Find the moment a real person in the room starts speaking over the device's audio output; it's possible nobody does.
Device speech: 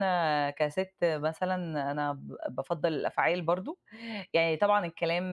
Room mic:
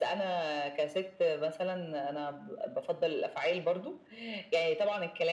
none

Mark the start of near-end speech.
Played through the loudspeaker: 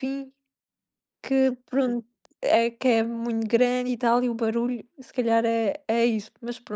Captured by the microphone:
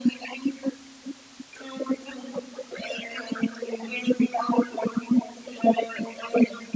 none

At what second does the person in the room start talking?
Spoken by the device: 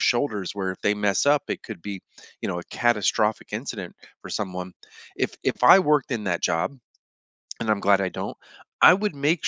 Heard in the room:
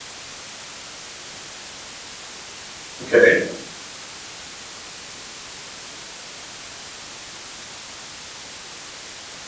3.0 s

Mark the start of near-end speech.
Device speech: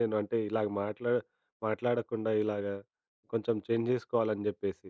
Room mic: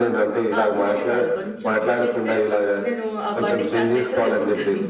0.6 s

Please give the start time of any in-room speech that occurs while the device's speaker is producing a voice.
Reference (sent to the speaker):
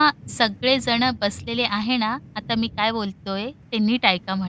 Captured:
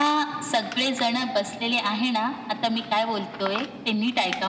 none

